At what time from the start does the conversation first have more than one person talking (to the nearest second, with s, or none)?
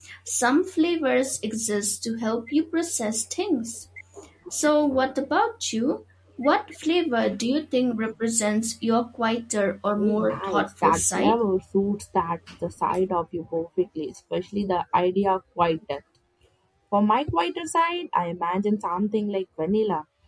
10 s